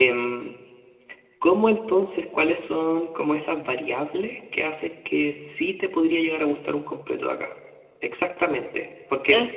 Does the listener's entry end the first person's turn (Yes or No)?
No